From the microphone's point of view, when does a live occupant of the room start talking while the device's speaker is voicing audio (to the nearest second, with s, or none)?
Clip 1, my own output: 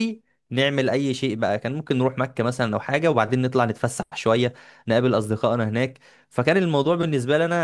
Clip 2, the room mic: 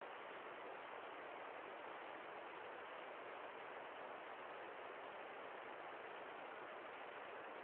none